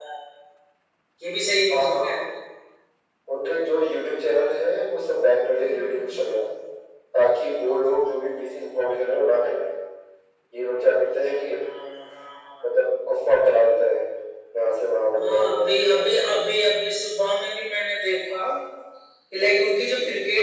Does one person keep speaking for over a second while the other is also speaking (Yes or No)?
Yes